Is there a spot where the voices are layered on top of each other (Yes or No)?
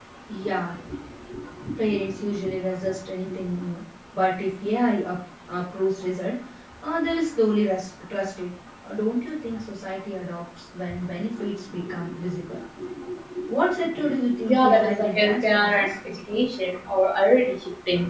Yes